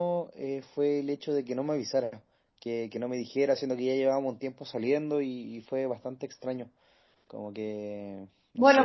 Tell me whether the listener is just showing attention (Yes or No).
No